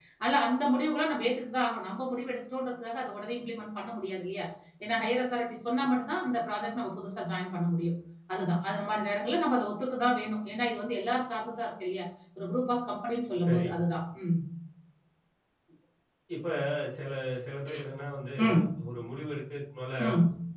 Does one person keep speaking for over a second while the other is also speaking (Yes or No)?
No